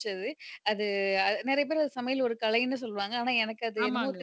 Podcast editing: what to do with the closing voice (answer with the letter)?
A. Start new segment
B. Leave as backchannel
A